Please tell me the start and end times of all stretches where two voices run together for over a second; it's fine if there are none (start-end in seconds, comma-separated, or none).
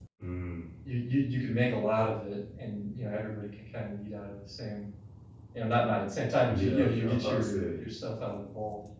6.5-7.8